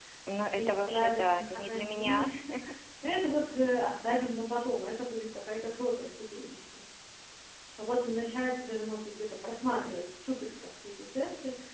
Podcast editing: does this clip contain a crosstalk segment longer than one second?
Yes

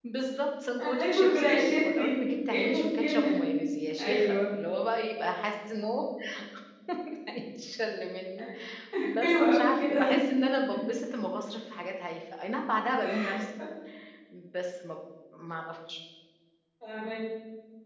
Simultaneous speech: Yes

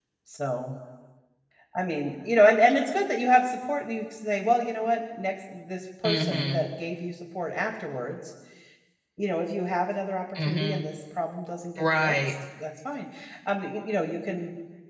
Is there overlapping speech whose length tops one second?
No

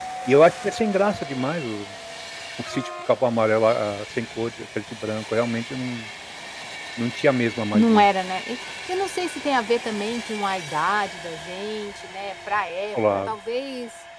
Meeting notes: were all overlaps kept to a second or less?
Yes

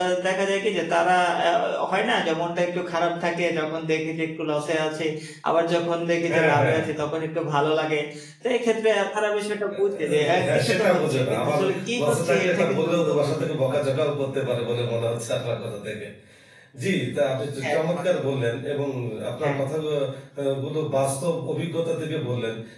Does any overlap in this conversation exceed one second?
Yes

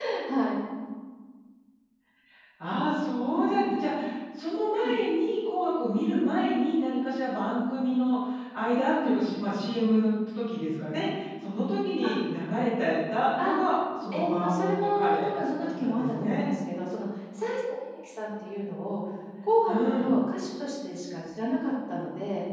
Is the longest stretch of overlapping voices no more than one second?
No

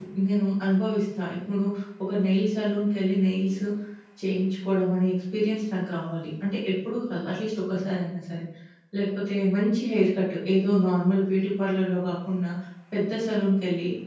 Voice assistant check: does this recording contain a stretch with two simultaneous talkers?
No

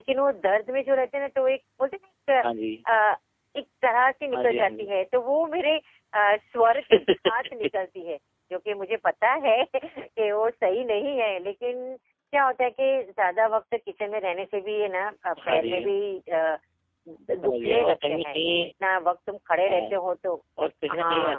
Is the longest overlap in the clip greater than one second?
Yes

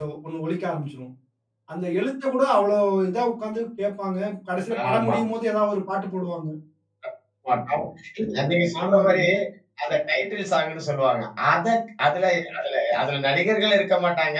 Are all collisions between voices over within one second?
Yes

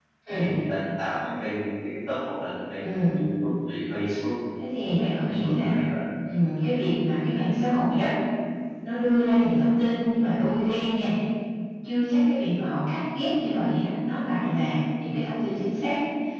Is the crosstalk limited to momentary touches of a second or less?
Yes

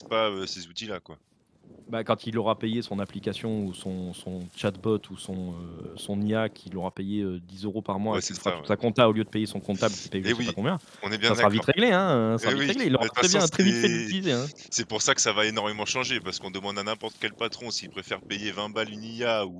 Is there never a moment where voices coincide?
No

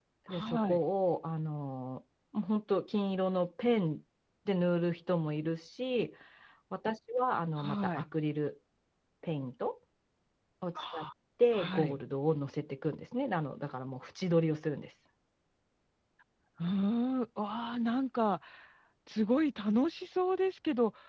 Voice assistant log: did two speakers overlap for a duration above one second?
No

